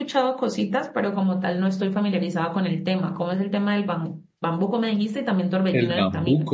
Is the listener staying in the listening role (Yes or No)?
No